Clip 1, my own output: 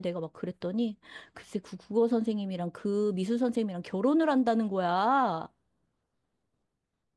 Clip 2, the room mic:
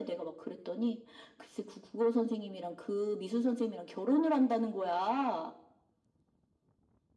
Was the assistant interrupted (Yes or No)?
No